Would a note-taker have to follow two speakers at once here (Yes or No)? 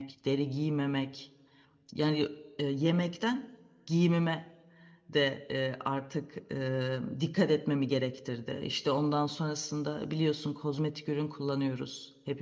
No